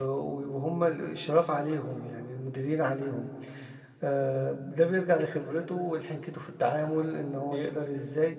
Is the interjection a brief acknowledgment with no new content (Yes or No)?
Yes